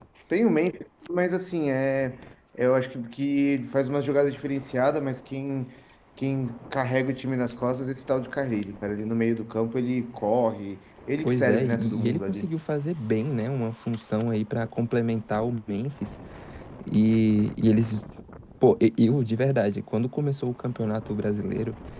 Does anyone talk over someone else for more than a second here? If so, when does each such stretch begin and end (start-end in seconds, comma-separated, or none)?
11.2-12.5